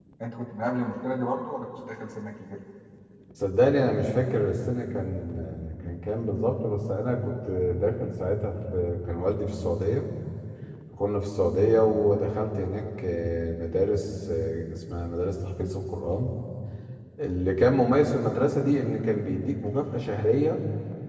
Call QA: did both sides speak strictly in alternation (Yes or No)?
Yes